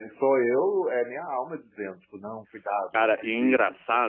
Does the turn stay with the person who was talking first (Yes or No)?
No